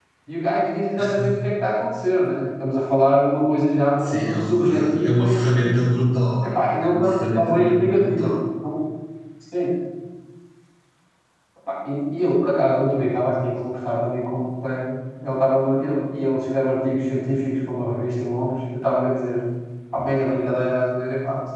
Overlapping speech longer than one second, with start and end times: 4.0-5.8, 6.4-8.3

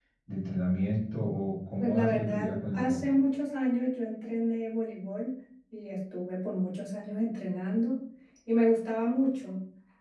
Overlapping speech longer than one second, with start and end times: 1.8-3.0

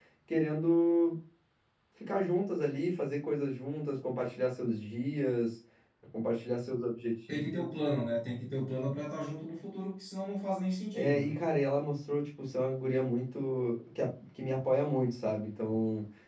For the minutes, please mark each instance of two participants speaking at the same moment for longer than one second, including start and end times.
none

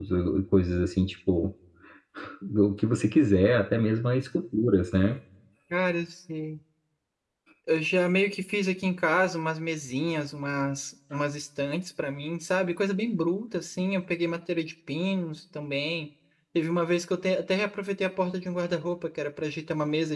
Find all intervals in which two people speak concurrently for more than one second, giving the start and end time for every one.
none

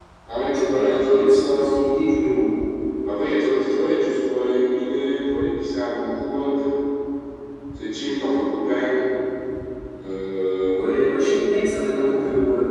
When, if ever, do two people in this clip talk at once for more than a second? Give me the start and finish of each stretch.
0.5-1.8

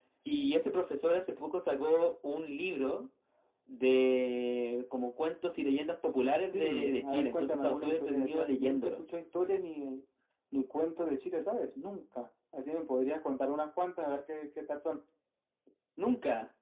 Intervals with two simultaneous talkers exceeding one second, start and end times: 6.5-9.0

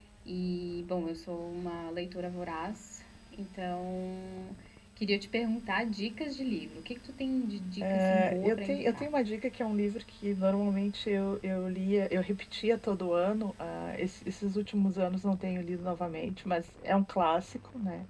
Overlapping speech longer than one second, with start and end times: 7.8-9.1

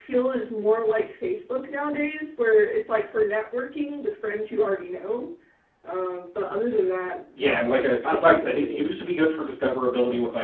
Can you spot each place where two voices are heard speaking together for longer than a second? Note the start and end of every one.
7.4-8.9

